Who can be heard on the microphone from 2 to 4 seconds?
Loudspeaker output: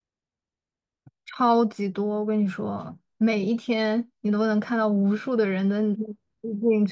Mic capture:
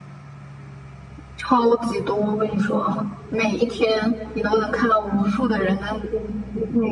echo only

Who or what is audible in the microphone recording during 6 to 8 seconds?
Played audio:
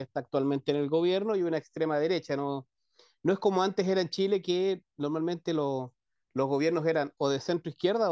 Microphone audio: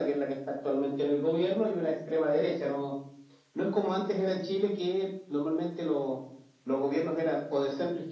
echo only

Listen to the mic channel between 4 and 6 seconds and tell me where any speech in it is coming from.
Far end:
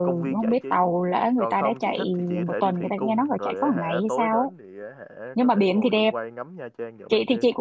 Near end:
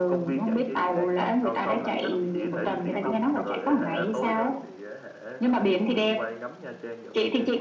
both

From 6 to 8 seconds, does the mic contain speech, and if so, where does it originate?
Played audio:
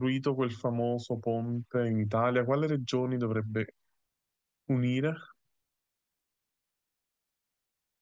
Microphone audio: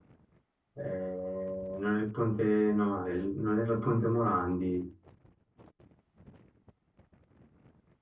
neither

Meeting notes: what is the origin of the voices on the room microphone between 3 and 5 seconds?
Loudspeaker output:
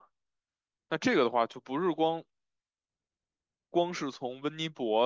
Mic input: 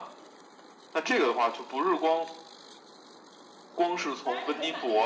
both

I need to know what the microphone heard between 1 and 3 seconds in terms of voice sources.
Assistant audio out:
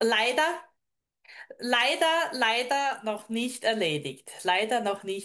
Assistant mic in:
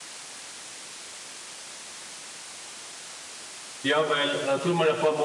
neither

